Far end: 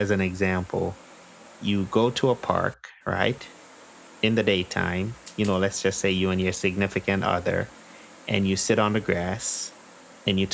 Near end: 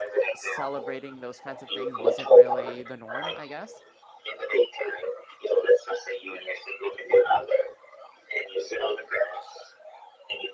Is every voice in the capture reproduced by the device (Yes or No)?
No